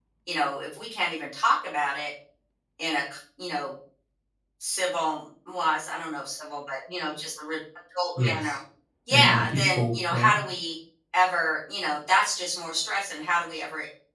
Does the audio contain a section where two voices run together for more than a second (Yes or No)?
Yes